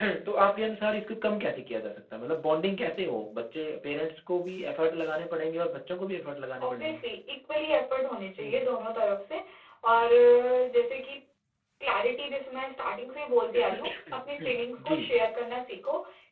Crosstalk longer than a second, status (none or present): present